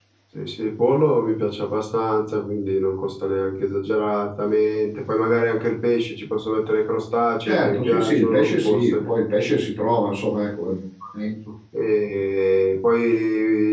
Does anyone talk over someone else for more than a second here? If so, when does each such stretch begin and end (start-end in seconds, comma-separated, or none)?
7.4-9.0